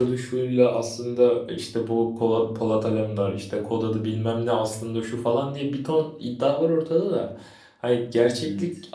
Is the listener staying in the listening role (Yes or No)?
Yes